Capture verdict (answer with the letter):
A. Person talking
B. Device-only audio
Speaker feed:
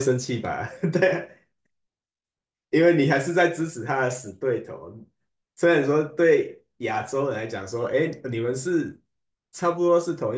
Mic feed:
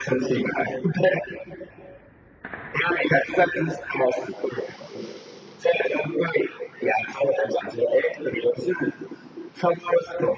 B